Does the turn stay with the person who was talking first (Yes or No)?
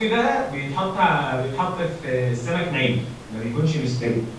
Yes